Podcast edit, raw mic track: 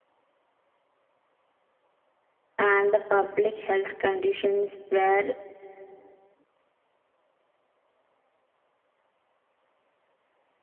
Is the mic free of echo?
Yes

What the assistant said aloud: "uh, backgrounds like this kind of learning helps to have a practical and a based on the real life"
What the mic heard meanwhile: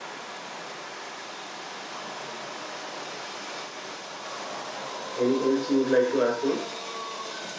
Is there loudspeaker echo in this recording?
No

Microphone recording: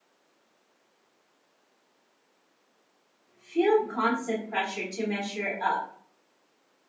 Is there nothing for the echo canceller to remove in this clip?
Yes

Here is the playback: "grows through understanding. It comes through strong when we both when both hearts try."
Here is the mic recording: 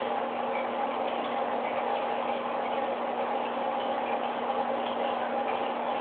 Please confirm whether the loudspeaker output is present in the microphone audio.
No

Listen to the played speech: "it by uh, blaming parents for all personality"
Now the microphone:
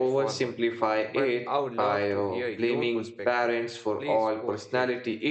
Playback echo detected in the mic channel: Yes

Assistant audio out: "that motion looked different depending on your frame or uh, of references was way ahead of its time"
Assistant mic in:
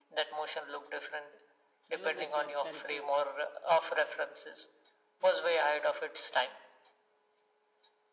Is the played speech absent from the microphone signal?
No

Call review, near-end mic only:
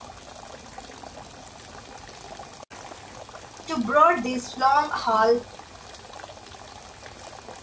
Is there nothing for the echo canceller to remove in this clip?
Yes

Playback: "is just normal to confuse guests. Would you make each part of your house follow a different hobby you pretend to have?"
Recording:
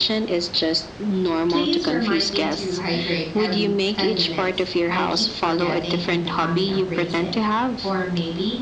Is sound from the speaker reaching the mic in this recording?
Yes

